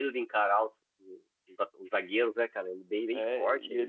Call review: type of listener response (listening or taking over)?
taking over